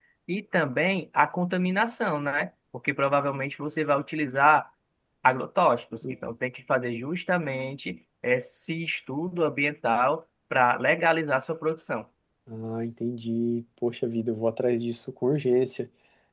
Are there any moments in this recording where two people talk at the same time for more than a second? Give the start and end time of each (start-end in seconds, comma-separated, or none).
none